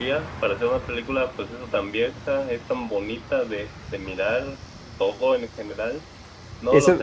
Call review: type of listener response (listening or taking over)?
listening